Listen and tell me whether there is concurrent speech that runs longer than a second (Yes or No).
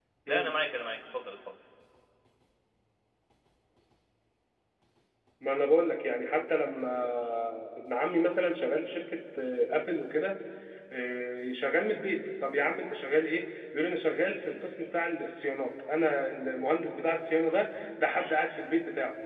No